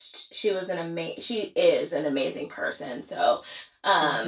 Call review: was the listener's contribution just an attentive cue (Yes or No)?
Yes